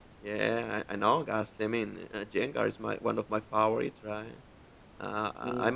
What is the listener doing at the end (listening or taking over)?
listening